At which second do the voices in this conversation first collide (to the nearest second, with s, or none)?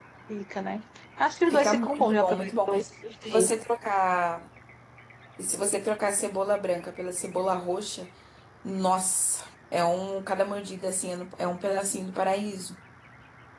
2 s